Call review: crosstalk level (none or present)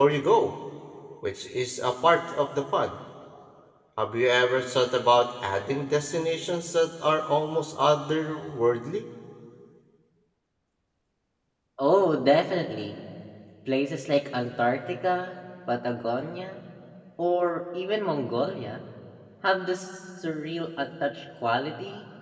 none